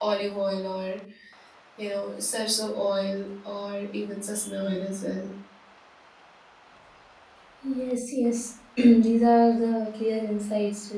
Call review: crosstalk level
none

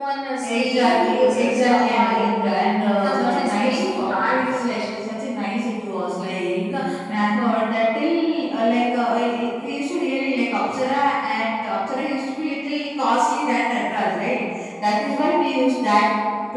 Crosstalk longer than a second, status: present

